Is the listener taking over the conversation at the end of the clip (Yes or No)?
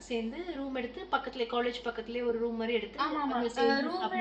Yes